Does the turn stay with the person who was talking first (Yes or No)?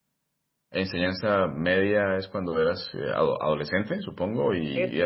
No